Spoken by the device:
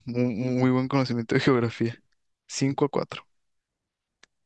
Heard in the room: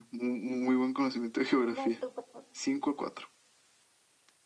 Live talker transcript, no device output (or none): Vas tú. por favor.